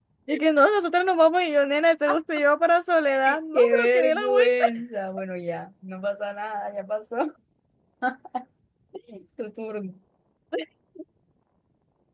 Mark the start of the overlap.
3.0 s

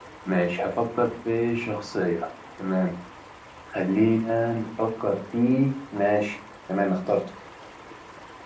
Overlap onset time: none

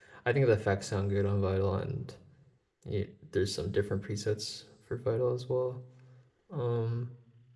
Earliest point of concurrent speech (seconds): none

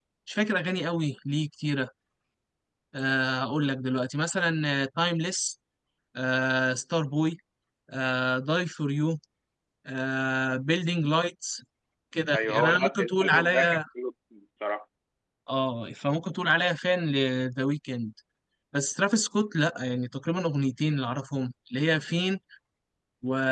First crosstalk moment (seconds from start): 12.3 s

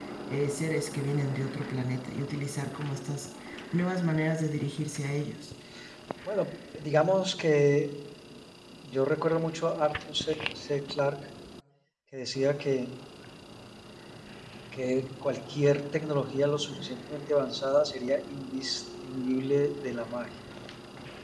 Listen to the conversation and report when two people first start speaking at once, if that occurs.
none

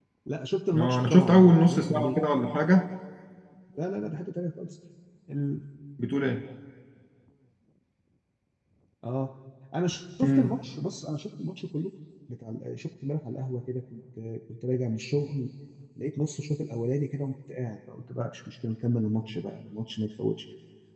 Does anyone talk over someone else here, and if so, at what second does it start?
0.8 s

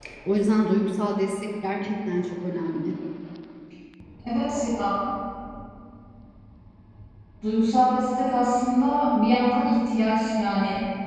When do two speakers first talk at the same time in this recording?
none

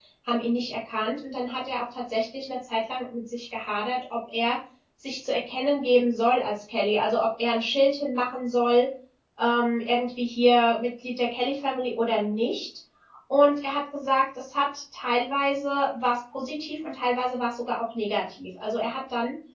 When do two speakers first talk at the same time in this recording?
none

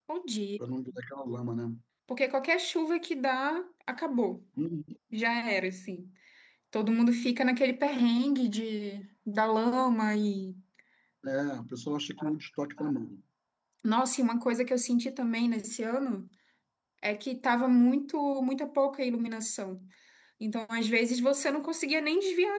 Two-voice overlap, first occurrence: none

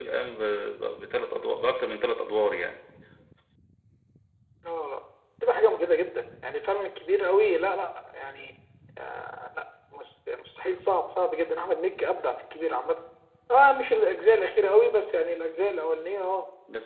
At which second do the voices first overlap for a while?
none

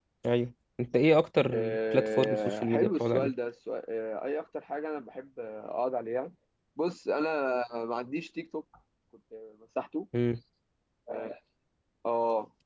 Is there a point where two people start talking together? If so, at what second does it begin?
1.5 s

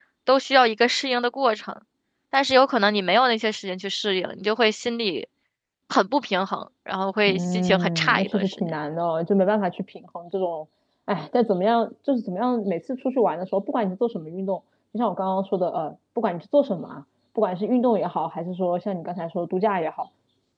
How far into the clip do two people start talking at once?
7.3 s

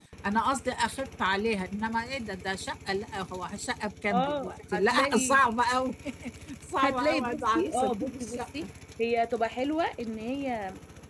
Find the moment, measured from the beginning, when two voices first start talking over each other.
4.1 s

